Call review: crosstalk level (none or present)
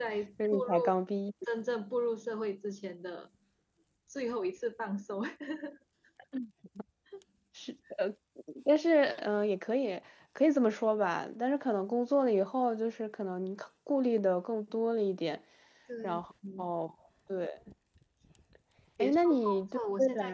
present